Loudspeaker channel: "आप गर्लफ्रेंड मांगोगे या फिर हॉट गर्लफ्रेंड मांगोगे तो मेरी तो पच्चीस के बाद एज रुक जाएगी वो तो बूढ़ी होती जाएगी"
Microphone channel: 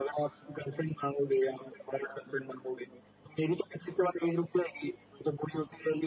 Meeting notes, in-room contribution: none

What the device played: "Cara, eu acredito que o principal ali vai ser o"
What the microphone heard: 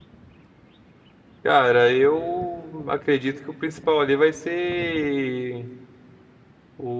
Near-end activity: none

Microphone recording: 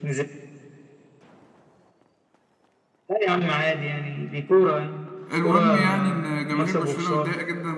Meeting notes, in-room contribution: present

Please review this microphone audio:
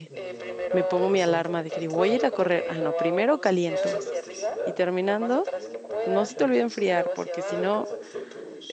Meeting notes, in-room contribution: present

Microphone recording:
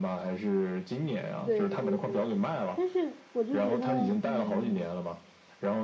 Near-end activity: present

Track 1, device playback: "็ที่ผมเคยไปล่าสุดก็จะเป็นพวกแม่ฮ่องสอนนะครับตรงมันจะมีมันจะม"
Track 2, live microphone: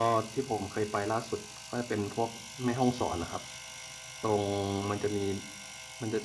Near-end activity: none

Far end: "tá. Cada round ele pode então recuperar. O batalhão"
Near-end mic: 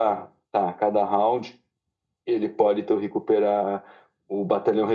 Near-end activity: none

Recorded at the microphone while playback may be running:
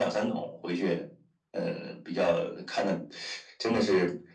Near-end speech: none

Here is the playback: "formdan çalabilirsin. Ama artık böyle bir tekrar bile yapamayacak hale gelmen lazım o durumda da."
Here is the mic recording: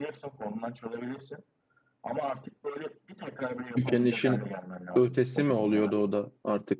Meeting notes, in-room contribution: present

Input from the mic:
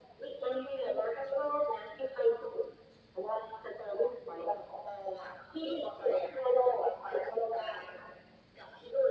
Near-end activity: none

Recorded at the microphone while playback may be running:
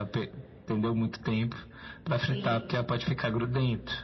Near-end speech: present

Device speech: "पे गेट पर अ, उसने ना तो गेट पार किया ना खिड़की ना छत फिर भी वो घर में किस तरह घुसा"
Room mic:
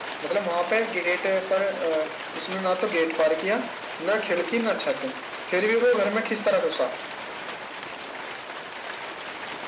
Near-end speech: none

